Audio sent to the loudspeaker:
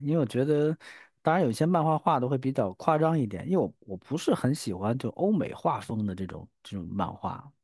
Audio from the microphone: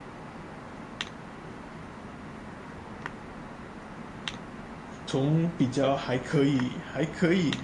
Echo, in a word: none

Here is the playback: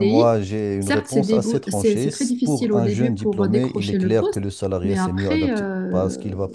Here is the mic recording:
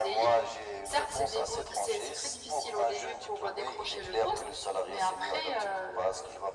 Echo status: present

